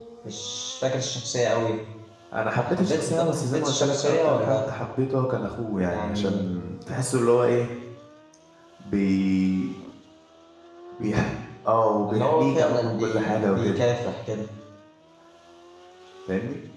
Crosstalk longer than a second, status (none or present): present